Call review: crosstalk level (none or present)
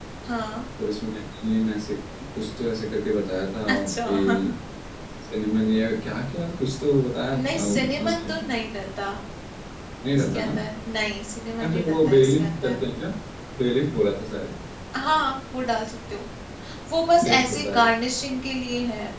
present